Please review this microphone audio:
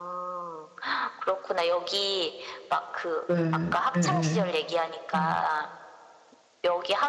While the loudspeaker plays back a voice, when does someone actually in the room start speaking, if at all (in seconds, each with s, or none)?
3.2 s